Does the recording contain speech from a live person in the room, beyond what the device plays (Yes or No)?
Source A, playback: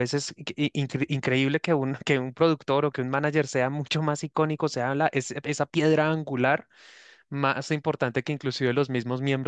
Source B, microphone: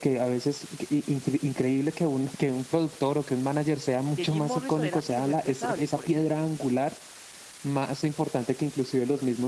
Yes